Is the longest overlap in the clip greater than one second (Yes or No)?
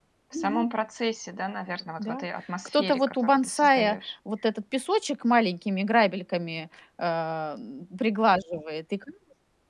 Yes